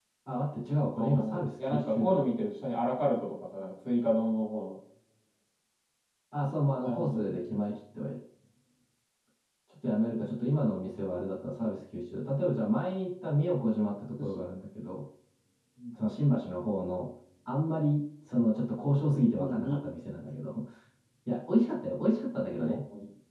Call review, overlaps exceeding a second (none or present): present